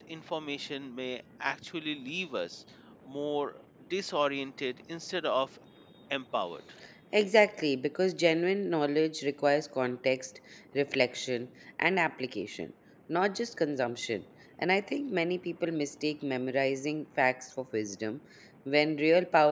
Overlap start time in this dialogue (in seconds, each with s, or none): none